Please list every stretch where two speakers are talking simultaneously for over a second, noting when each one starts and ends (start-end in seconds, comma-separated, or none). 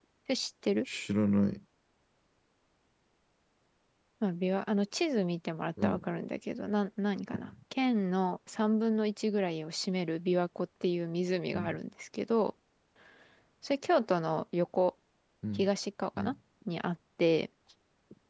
none